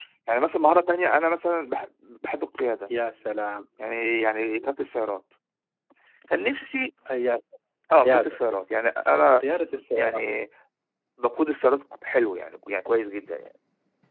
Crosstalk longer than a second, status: none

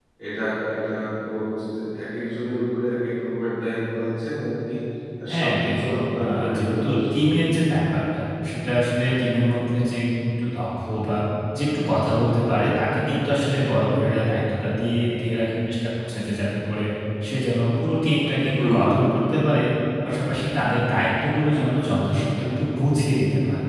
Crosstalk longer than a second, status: present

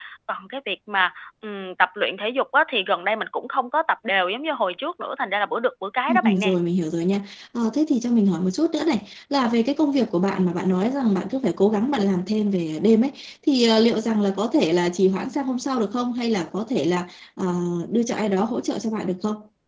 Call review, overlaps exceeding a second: none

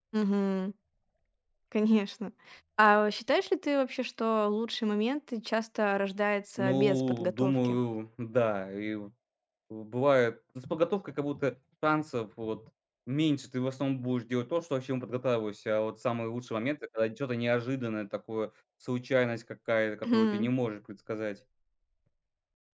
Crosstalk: present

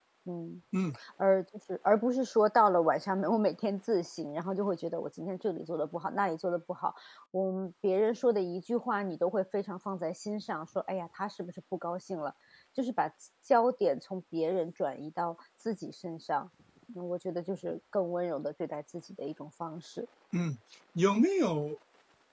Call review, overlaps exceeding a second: none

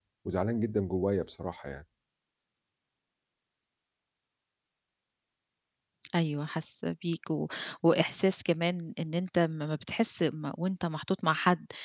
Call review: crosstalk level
none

